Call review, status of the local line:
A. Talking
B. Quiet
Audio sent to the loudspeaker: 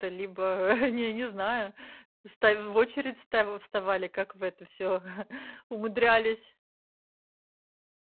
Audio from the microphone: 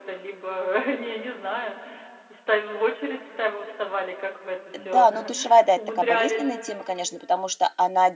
A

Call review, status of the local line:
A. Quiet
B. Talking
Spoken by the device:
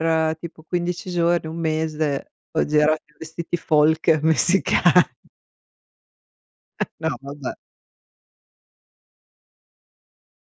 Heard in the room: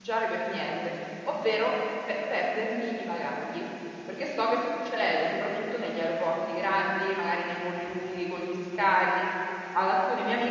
B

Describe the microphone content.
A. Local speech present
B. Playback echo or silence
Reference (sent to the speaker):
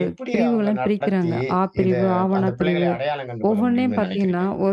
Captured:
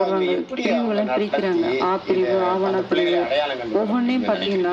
B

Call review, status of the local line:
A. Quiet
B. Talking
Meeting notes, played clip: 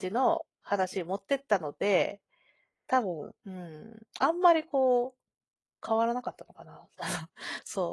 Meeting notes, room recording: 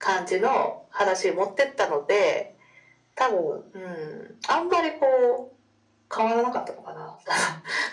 A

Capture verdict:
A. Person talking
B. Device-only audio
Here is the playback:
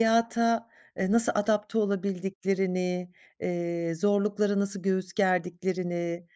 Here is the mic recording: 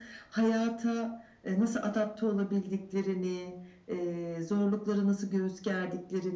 B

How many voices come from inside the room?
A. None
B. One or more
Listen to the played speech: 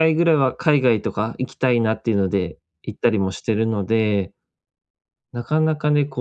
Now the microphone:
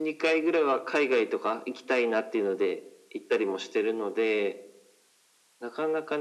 A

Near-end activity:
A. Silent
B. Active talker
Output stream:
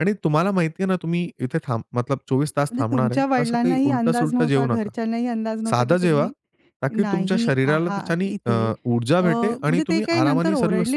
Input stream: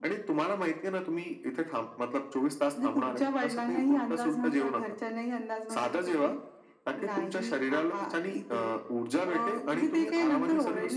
A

